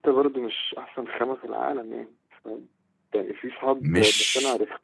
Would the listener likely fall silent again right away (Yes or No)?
Yes